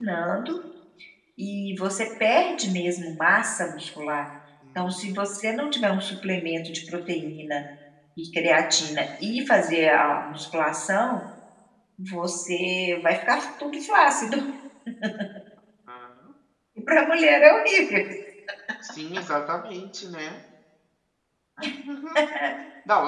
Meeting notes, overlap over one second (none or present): none